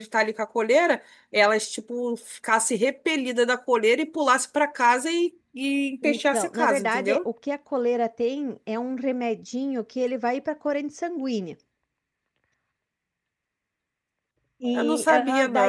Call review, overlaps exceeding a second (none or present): present